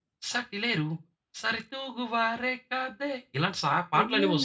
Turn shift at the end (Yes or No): Yes